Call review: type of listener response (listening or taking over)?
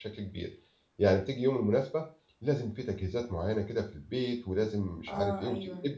listening